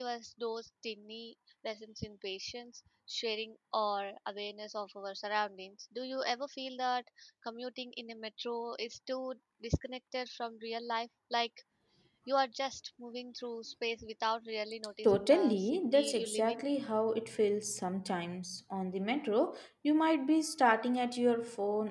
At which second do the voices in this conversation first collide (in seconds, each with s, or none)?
15.0 s